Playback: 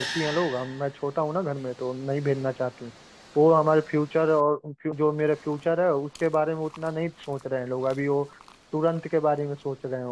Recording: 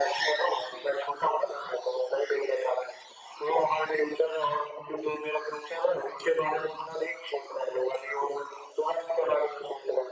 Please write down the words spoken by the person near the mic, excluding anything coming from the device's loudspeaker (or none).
none